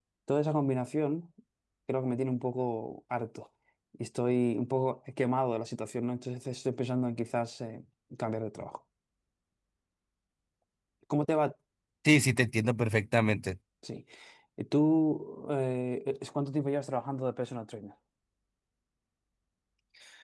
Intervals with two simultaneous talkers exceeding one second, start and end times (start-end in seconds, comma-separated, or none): none